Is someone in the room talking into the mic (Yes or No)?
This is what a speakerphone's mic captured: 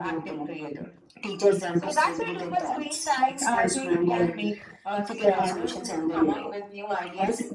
No